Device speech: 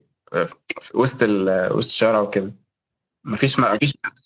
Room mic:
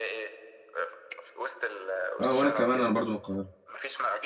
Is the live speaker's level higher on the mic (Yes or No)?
Yes